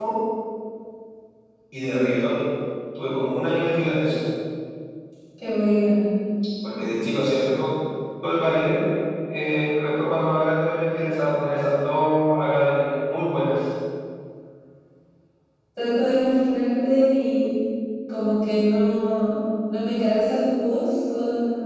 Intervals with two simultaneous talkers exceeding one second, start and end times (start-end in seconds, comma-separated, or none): none